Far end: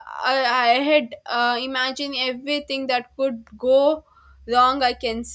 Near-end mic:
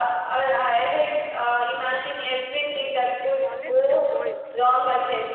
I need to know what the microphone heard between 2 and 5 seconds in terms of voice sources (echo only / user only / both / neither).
both